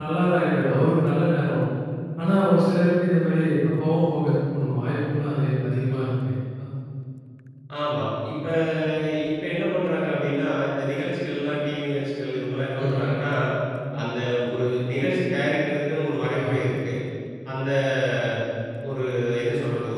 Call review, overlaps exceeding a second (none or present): none